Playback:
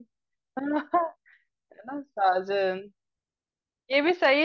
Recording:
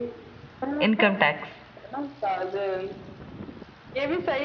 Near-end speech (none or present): present